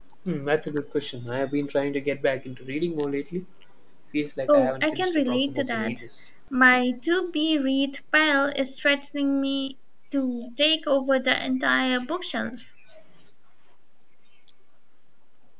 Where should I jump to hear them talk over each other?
4.5 s

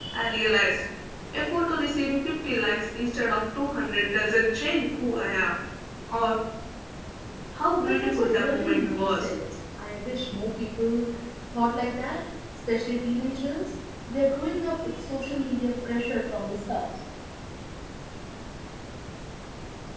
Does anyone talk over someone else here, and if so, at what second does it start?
7.8 s

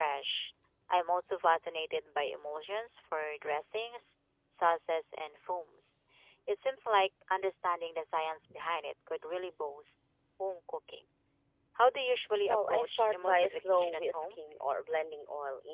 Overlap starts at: 12.5 s

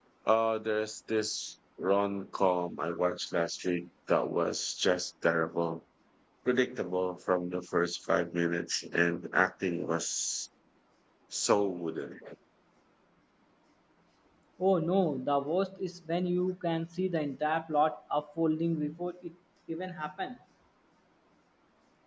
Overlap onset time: none

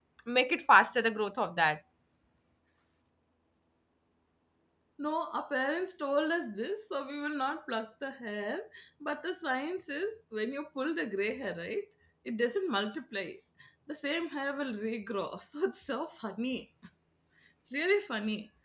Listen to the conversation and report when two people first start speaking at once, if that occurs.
none

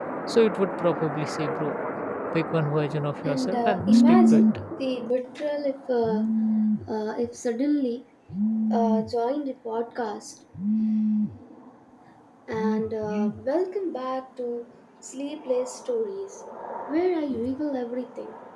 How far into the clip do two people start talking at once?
3.2 s

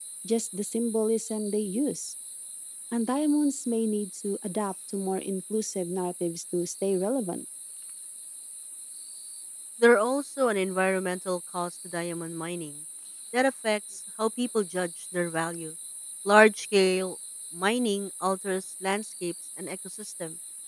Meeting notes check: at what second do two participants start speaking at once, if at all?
none

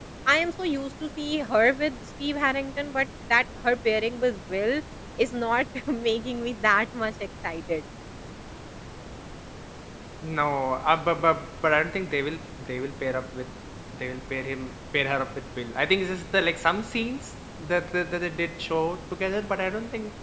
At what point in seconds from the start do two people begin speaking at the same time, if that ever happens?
none

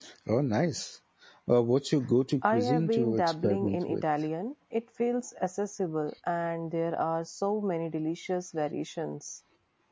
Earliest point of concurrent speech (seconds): 2.4 s

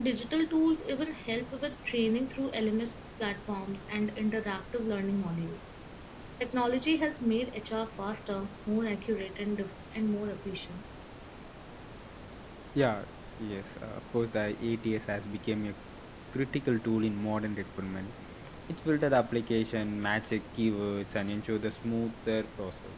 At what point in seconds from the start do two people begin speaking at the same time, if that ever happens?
none

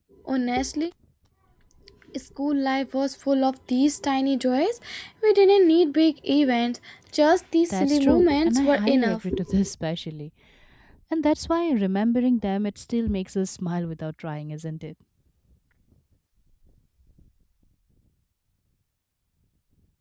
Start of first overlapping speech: 7.7 s

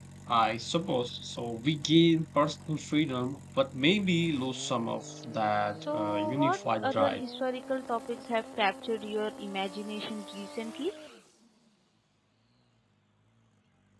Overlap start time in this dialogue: 5.8 s

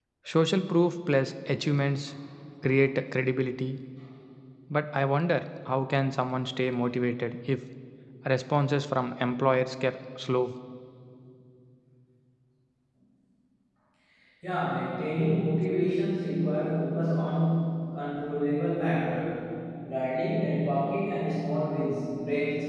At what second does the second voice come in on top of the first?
none

